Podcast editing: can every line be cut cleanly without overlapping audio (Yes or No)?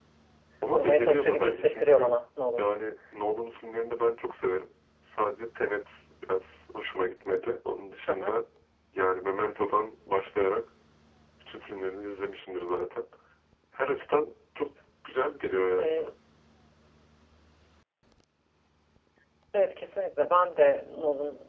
No